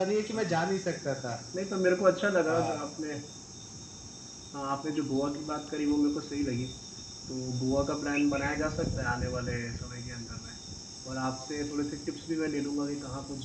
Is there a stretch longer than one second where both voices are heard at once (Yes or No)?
No